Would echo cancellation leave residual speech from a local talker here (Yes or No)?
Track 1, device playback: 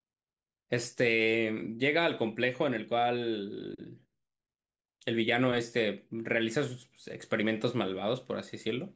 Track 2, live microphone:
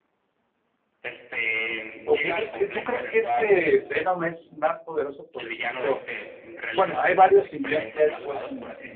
Yes